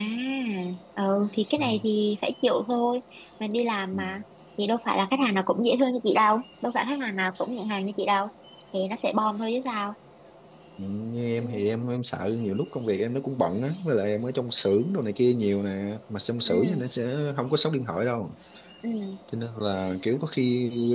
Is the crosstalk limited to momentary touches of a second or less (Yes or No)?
Yes